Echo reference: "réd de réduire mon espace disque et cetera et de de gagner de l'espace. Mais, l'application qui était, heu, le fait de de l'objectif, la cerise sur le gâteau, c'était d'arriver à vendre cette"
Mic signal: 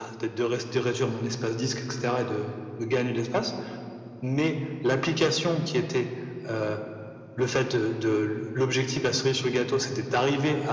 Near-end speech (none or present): none